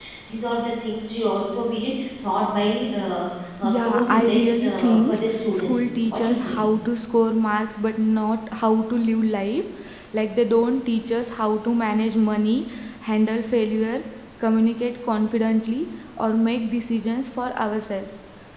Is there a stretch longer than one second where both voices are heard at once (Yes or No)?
Yes